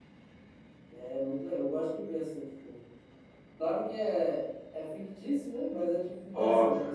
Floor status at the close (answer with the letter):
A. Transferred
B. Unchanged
B